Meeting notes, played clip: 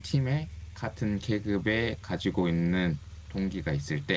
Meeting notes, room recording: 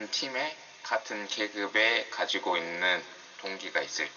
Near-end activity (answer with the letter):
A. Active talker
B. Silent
B